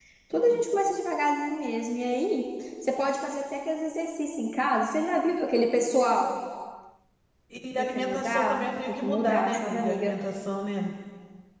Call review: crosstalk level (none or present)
present